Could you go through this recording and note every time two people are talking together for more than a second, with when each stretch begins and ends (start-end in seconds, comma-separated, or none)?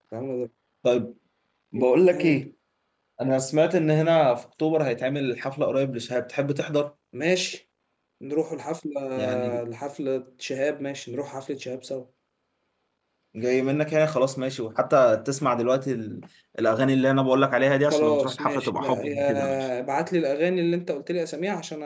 17.9-19.6